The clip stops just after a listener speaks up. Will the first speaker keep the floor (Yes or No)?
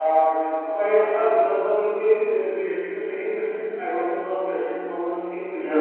No